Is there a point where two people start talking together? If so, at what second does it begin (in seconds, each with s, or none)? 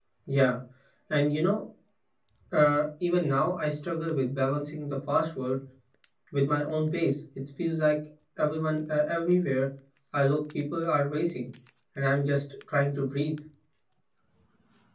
none